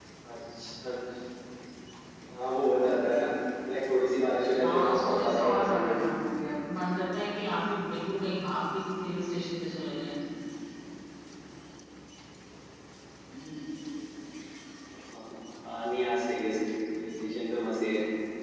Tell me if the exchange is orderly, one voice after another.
No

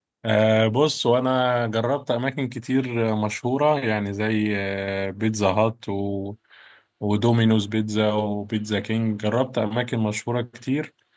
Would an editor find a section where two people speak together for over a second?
No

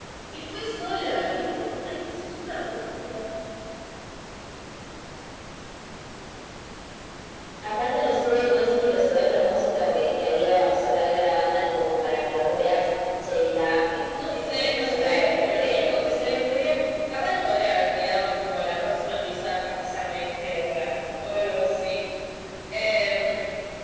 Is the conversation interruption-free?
No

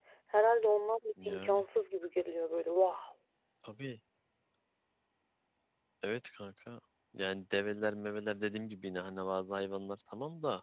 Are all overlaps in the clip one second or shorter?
Yes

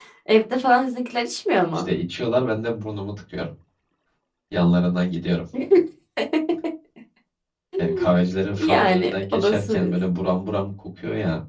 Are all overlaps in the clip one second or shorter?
No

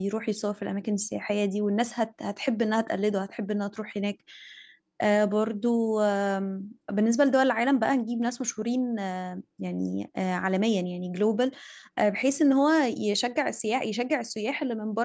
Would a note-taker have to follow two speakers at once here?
No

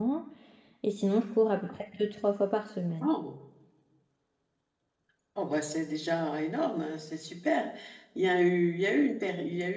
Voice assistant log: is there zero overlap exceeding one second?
Yes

